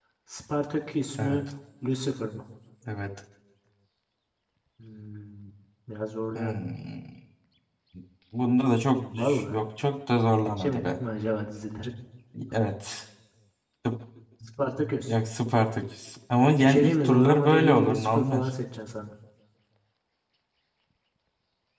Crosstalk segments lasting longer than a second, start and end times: 16.6-18.4

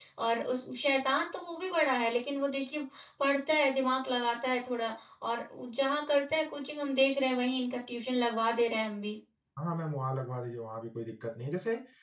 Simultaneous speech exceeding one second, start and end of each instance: none

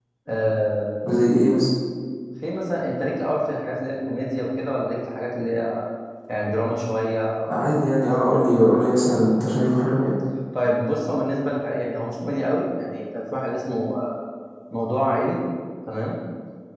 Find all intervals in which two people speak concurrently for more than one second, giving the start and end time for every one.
none

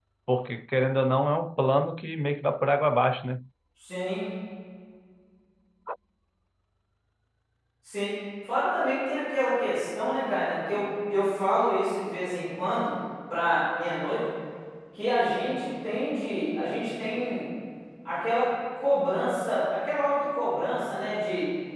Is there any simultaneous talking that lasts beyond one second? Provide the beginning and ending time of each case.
none

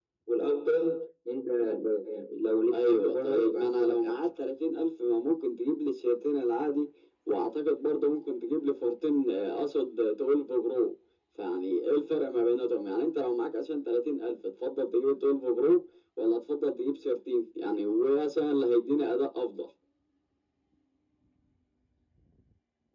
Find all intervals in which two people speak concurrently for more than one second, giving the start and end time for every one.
2.7-4.2

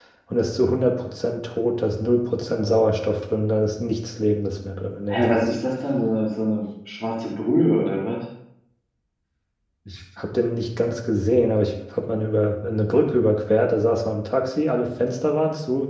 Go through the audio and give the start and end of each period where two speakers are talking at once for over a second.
none

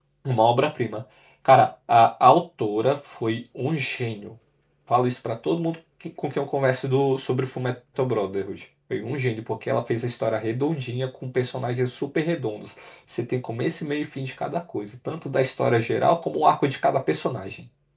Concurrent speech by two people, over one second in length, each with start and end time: none

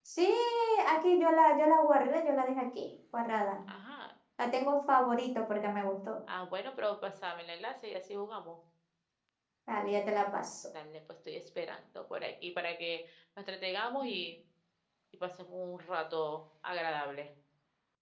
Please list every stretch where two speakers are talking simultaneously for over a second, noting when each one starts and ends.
none

